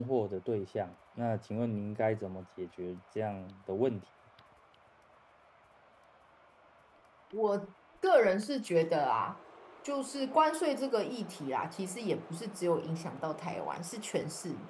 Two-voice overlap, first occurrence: none

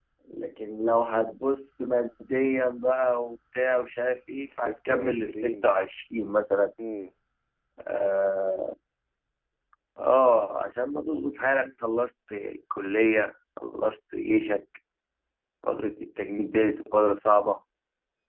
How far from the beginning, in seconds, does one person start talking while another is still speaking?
4.4 s

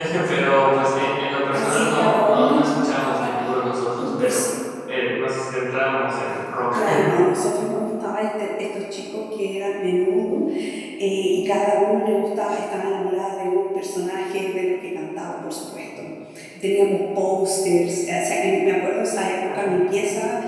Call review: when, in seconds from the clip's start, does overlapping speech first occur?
1.5 s

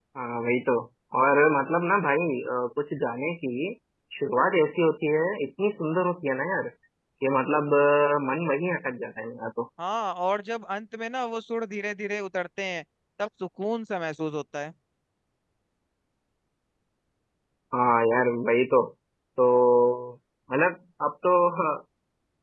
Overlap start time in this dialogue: none

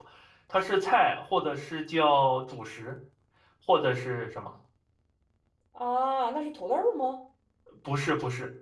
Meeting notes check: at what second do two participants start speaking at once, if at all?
none

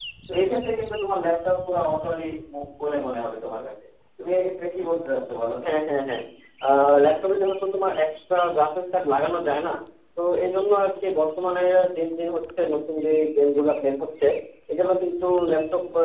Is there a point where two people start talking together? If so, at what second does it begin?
none

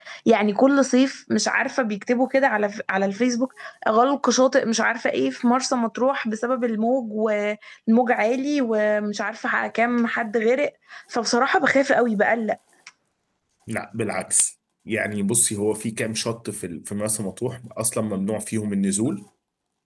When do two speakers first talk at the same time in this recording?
none

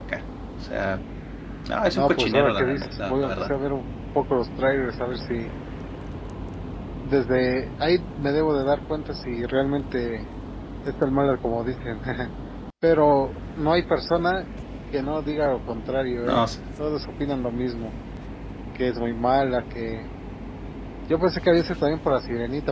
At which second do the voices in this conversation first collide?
1.9 s

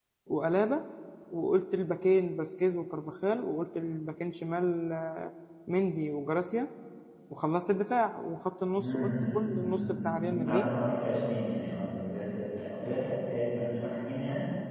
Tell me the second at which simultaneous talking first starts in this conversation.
8.7 s

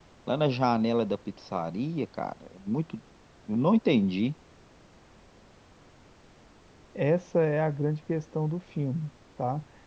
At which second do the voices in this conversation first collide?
none

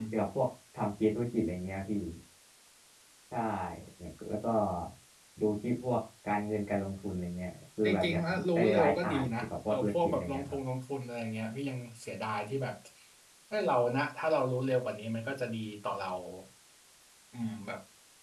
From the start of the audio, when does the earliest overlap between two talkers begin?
7.8 s

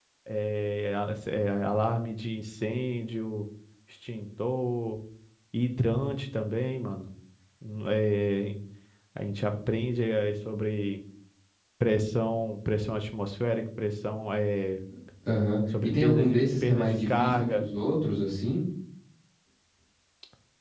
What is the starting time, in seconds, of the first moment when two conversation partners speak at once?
15.8 s

